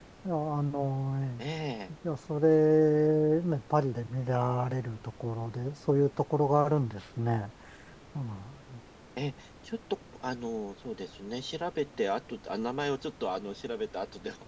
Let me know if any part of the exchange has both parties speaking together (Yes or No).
No